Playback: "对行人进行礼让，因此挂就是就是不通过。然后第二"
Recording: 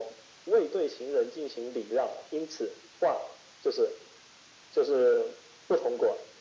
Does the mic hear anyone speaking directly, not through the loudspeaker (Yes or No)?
No